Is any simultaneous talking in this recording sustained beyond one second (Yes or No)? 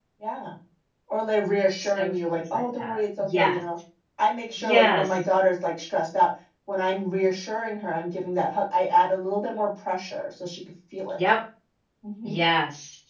Yes